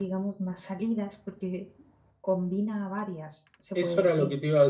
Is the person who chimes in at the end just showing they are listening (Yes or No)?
No